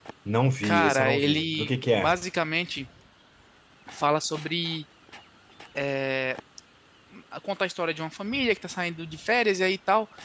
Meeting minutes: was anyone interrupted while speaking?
Yes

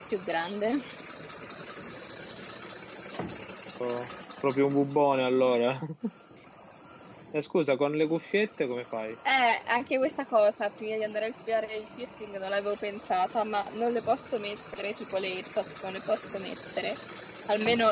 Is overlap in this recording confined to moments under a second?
Yes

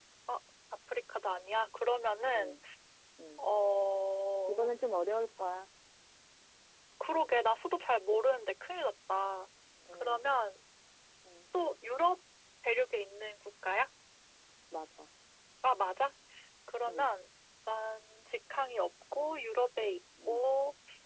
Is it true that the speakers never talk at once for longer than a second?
Yes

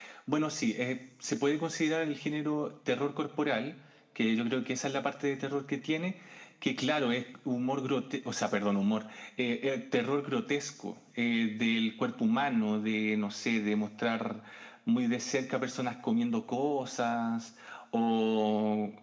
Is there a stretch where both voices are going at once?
No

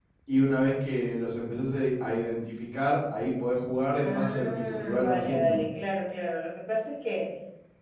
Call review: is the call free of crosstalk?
No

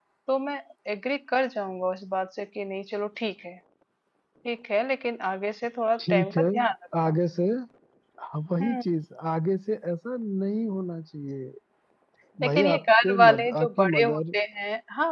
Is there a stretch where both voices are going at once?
Yes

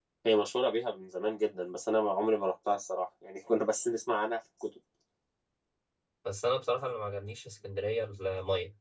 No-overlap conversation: Yes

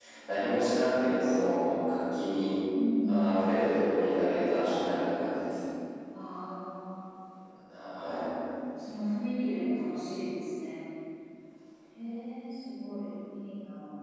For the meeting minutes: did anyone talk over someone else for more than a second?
No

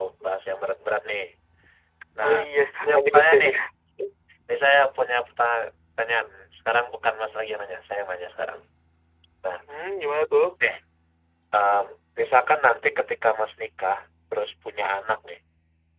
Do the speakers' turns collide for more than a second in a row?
Yes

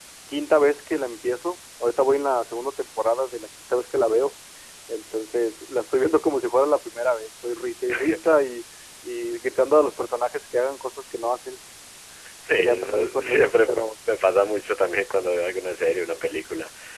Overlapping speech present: Yes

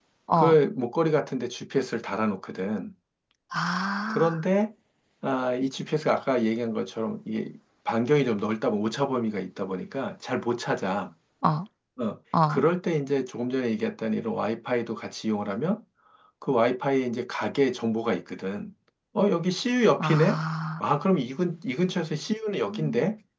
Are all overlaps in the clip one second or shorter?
Yes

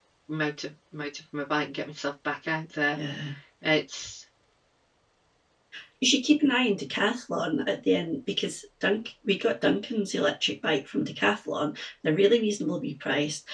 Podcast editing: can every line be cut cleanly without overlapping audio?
Yes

